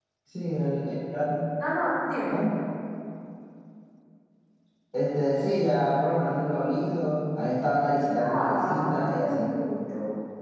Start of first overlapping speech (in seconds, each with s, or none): 8.2 s